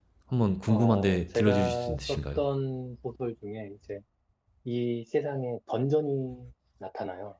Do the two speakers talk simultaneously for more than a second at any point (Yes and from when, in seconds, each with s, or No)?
Yes, from 0.7 s